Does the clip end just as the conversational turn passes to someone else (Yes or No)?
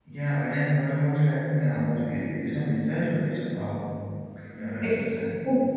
Yes